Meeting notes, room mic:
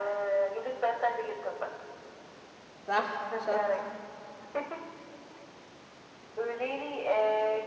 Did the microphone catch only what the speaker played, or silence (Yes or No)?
No